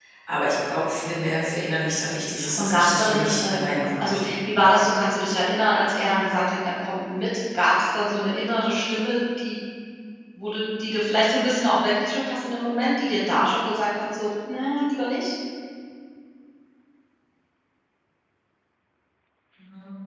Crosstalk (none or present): present